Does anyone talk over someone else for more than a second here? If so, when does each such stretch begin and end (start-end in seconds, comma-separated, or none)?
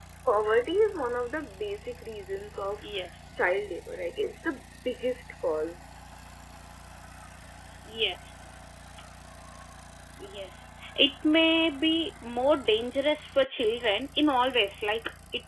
none